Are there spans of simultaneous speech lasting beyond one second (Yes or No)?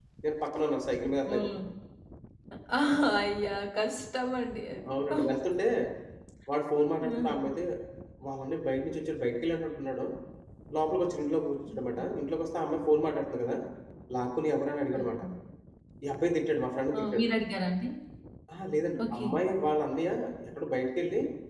No